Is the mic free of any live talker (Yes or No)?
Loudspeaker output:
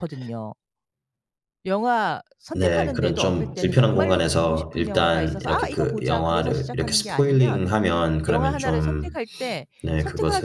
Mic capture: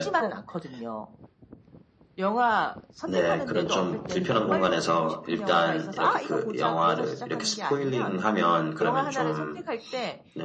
Yes